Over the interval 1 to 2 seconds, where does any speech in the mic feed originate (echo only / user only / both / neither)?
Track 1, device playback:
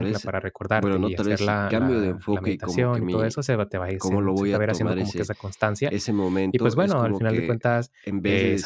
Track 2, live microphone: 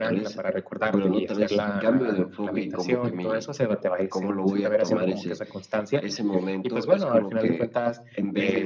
echo only